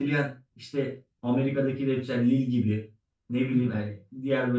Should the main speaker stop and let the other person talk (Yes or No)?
No